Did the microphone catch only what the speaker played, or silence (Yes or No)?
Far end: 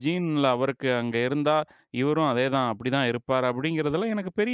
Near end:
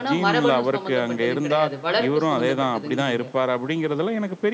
No